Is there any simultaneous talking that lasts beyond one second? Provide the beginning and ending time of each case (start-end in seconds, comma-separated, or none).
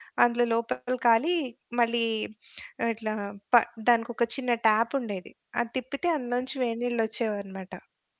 none